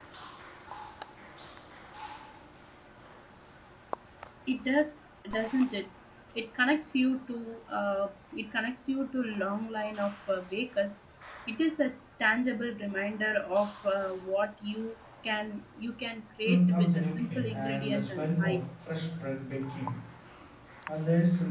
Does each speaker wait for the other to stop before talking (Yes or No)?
No